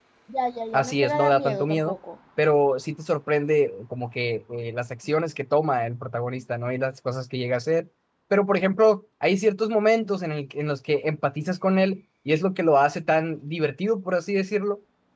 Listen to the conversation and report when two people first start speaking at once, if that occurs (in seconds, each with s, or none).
0.7 s